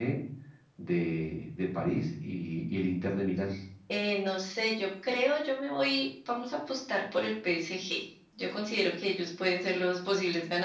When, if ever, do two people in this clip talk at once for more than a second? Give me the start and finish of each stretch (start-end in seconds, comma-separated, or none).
none